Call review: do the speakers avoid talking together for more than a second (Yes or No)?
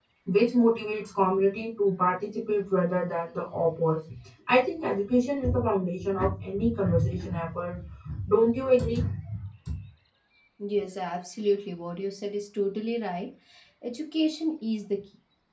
Yes